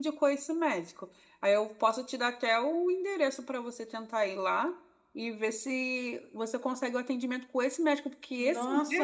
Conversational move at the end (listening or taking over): taking over